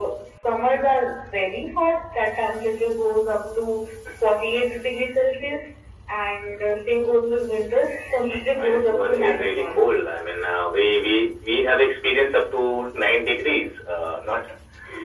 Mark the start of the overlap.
8.5 s

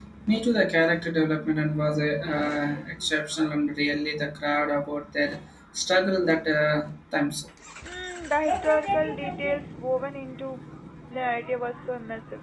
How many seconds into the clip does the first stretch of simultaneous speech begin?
none

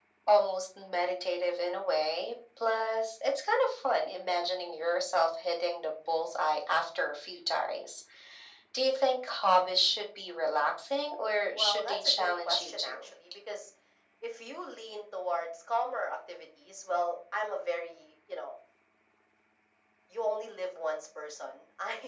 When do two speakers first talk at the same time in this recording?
11.6 s

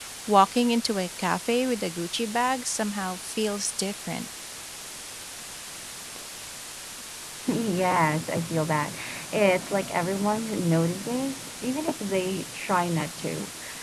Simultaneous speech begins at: none

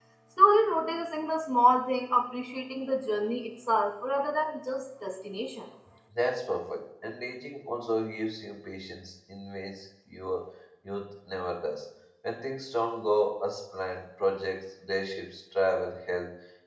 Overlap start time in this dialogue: none

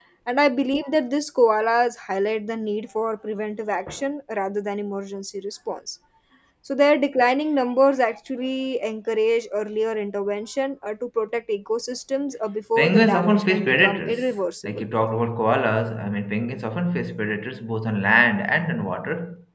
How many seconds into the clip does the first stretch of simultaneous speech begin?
12.8 s

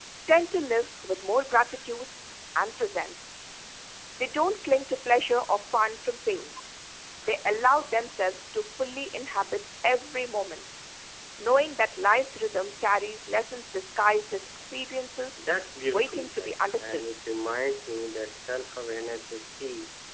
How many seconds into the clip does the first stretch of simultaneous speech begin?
15.9 s

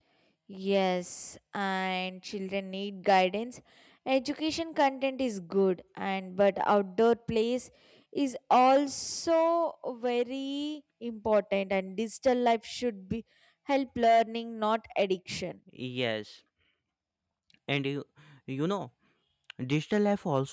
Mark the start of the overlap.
none

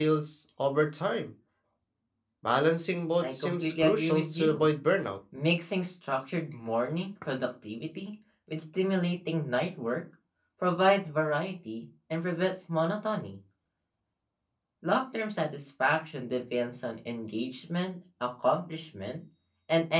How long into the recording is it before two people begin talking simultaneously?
3.2 s

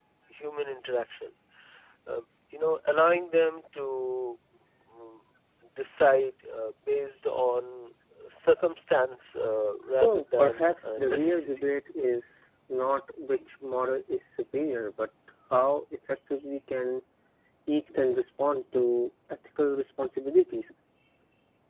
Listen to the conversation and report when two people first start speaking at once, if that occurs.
9.8 s

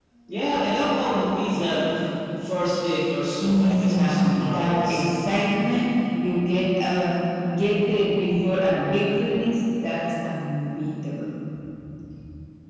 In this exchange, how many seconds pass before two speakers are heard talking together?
3.4 s

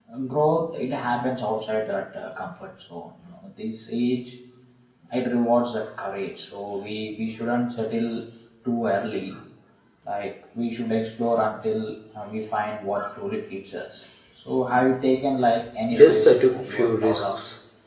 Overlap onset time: 15.9 s

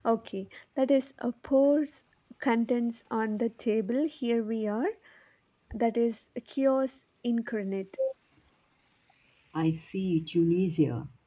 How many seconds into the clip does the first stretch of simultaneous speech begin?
none

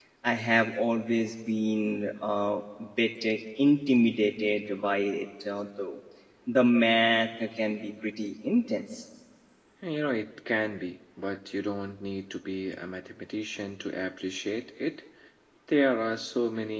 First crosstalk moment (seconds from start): none

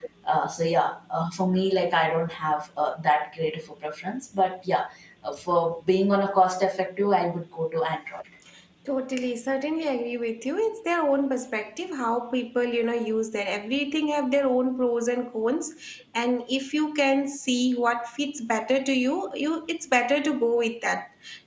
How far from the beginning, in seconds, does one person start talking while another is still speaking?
none

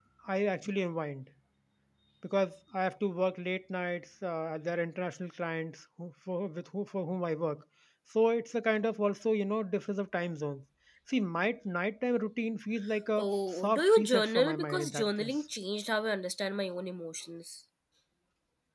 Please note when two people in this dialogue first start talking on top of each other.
13.2 s

